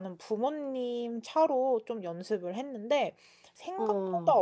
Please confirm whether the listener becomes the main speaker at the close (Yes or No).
No